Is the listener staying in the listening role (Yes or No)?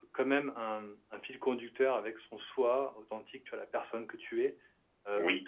Yes